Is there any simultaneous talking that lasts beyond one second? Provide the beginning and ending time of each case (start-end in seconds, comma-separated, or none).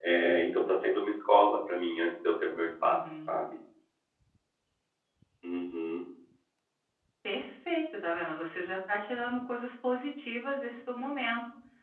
none